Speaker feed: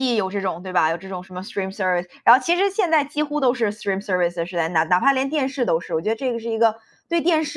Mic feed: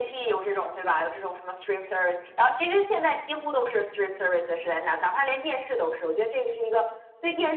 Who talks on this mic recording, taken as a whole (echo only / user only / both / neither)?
echo only